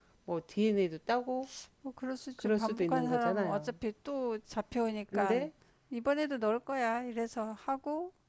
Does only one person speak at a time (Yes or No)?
No